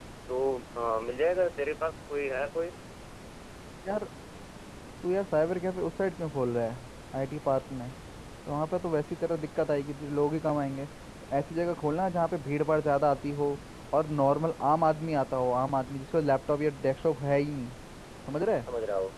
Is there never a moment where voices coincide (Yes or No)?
Yes